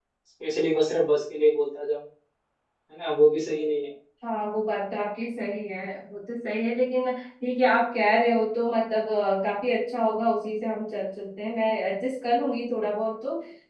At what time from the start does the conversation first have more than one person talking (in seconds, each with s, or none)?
none